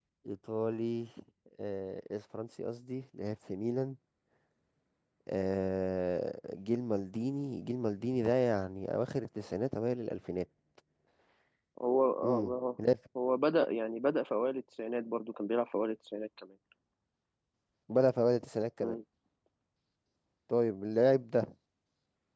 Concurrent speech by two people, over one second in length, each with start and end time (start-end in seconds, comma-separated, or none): none